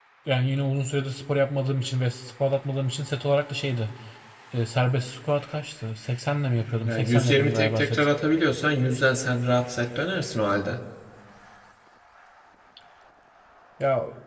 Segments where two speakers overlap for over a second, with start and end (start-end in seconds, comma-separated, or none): 6.8-8.1